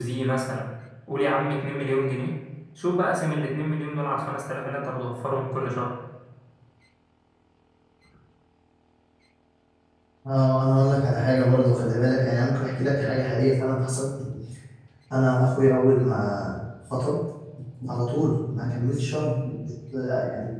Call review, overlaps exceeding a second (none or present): none